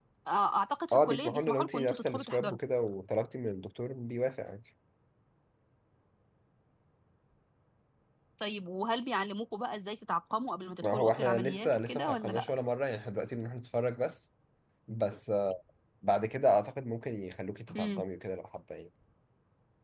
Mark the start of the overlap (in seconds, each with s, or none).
0.9 s